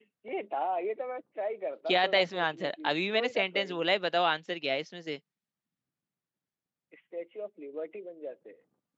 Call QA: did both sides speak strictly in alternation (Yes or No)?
No